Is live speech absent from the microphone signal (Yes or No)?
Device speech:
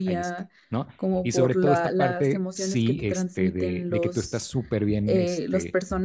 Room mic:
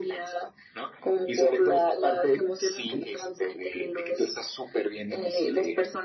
Yes